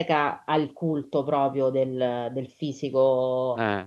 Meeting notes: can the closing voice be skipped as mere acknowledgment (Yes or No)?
Yes